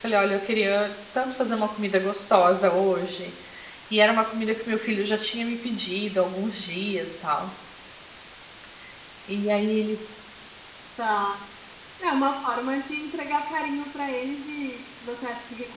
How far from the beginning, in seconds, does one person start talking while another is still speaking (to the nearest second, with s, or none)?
none